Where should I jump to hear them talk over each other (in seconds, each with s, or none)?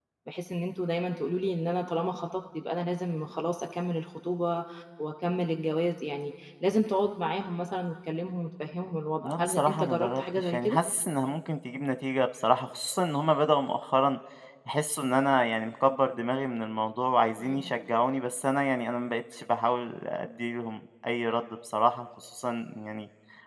9.2 s